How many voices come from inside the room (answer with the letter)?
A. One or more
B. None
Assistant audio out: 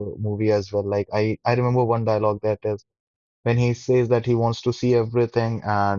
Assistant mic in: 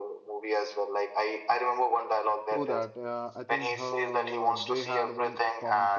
A